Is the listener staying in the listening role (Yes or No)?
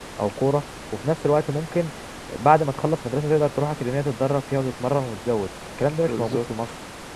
No